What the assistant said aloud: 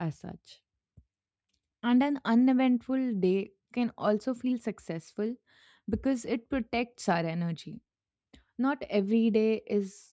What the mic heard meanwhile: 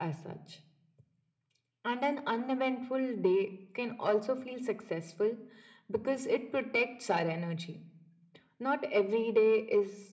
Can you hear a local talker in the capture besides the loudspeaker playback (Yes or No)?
No